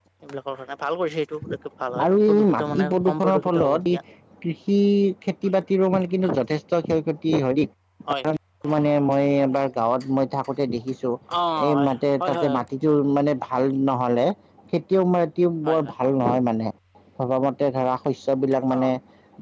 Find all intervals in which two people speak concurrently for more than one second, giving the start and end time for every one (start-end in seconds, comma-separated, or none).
2.0-3.8